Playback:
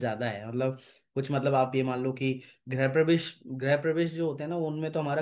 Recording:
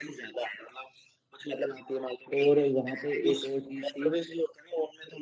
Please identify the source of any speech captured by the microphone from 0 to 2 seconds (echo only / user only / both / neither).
echo only